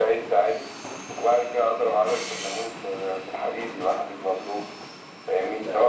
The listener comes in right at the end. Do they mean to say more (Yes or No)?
No